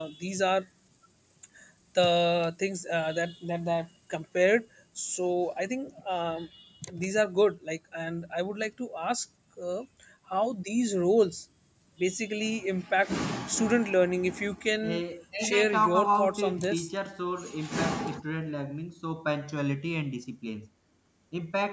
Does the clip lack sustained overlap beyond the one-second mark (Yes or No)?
No